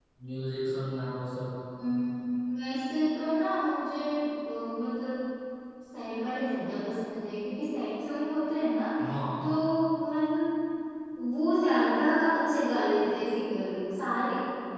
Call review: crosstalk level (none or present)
none